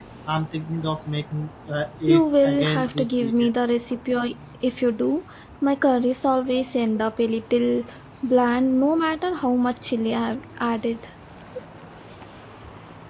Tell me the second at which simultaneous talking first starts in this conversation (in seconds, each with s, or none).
2.1 s